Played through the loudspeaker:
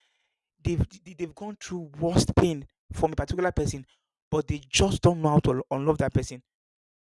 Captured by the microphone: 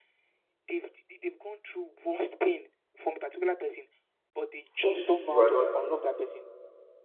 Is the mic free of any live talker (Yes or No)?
No